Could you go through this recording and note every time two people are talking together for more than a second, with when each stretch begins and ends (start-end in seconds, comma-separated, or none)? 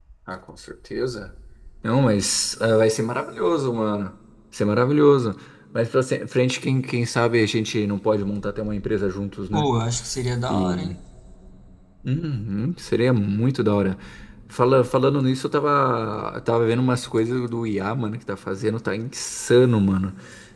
none